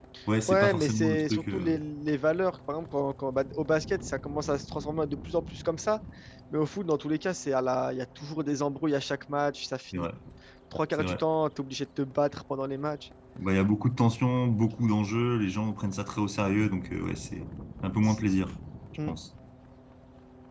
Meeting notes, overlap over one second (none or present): present